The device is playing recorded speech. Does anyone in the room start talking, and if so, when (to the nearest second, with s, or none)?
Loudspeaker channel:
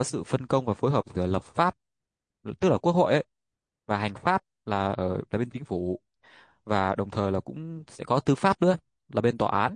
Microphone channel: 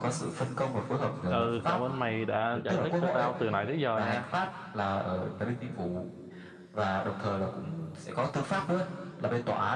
1 s